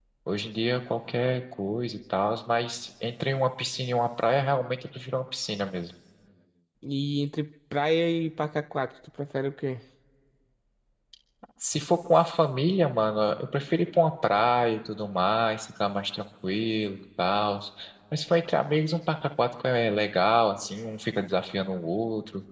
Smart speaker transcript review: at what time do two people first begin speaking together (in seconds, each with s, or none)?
none